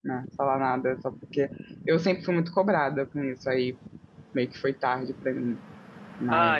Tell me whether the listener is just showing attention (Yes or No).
No